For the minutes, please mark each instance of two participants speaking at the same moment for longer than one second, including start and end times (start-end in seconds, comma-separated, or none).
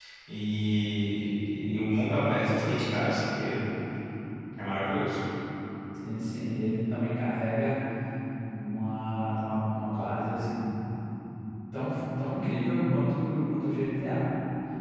none